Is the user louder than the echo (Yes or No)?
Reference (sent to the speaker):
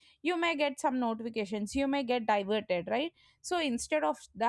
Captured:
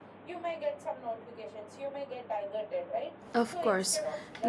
Yes